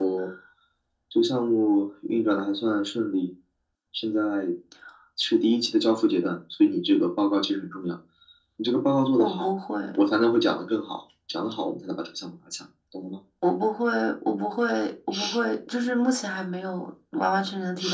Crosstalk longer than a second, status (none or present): none